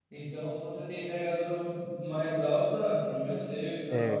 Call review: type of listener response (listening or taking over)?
taking over